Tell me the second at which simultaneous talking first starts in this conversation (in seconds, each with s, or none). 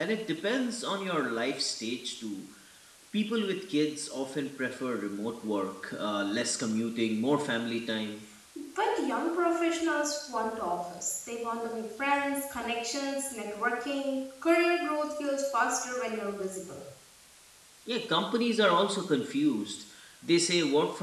none